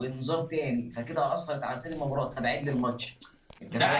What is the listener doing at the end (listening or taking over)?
taking over